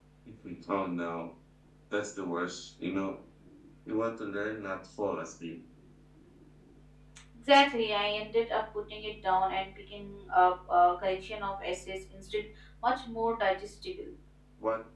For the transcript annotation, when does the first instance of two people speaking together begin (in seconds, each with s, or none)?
none